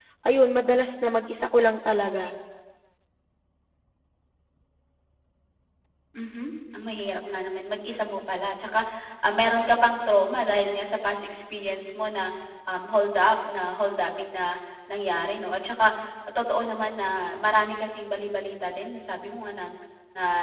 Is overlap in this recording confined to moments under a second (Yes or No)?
Yes